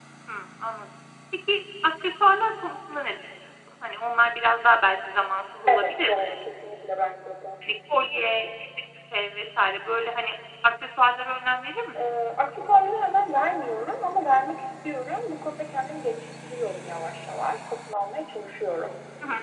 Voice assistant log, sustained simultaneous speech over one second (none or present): none